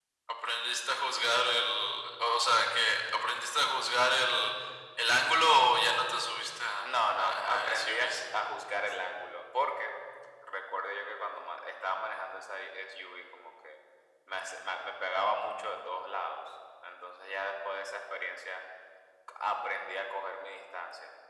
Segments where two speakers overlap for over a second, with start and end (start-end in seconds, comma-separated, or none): 6.8-8.2